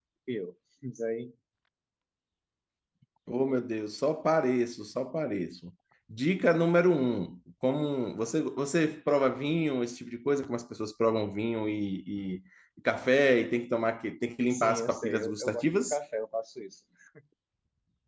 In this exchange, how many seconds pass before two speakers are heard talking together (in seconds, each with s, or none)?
14.5 s